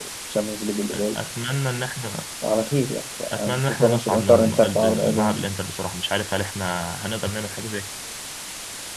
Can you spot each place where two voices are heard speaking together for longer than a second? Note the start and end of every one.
3.3-5.5

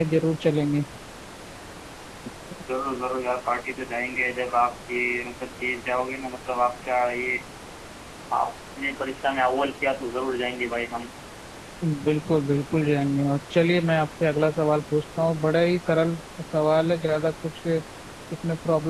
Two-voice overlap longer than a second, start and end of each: none

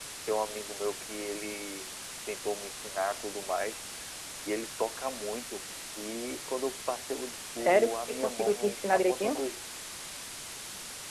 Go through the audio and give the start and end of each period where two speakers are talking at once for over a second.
7.5-9.3

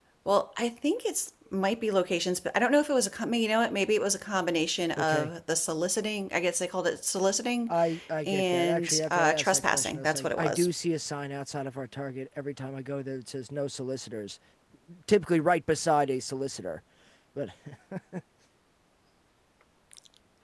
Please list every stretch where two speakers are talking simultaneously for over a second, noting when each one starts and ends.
8.3-10.7

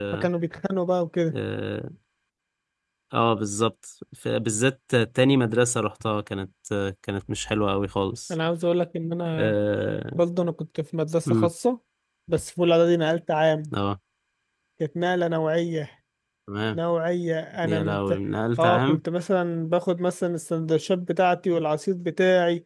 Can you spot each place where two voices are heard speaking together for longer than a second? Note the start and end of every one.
none

